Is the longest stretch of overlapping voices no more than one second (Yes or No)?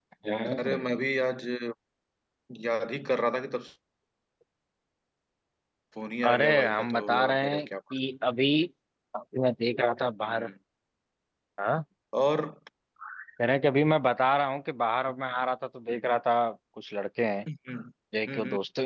No